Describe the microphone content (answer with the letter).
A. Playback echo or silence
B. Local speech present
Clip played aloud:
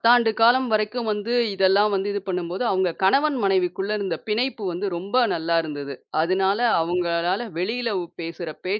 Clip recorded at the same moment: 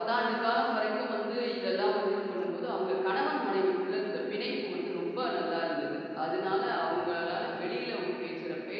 A